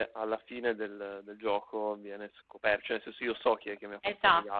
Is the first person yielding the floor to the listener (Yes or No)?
Yes